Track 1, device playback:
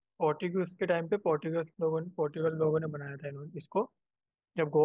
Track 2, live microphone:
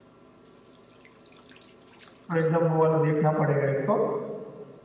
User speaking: Yes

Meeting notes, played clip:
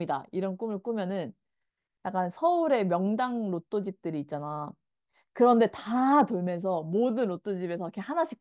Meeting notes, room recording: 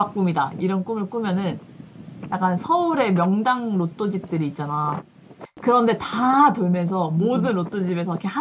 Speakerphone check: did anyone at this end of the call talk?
Yes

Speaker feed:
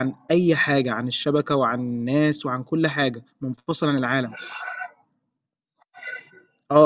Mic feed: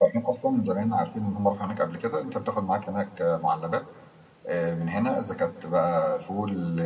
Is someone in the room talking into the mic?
Yes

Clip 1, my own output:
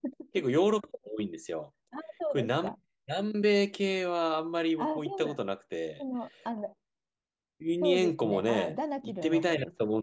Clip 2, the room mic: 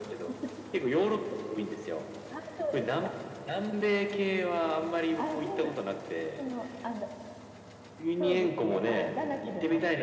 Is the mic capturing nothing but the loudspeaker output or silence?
Yes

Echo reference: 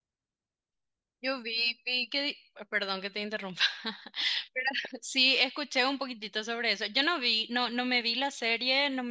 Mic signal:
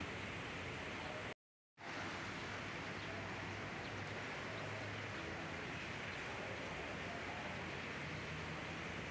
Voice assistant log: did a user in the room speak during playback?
No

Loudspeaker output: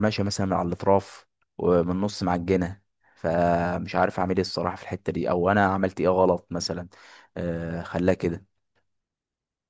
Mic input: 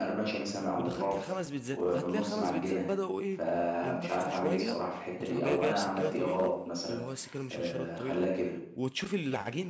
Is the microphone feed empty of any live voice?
No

